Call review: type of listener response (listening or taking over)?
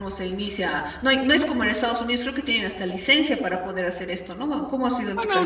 taking over